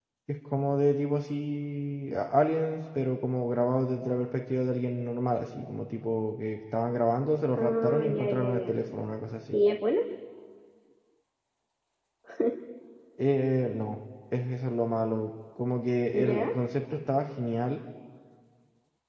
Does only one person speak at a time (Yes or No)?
No